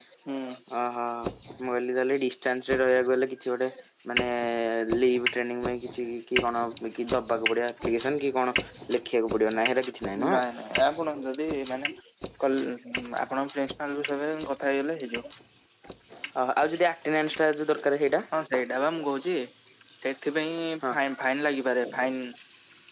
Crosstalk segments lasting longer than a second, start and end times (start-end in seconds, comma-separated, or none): none